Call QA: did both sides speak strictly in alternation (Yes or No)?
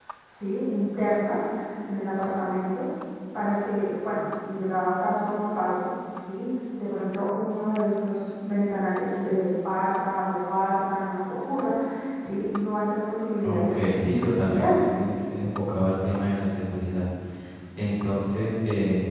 No